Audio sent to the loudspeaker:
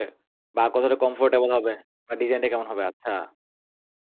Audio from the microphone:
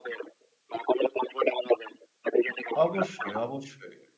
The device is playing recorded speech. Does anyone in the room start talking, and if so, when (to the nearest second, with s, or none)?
3 s